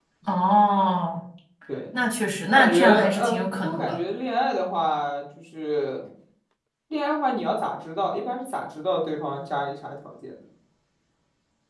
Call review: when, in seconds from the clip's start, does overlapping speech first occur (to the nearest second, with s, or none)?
2 s